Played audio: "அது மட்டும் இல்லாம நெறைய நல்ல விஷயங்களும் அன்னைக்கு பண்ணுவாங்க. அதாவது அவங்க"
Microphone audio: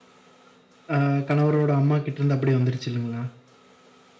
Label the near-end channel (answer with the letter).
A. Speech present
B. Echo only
A